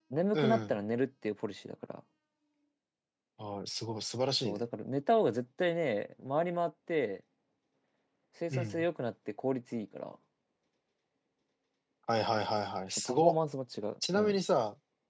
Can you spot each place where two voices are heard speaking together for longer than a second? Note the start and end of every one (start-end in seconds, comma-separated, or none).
none